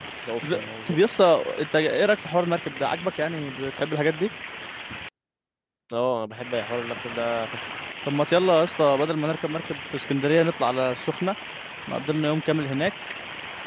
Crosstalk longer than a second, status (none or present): none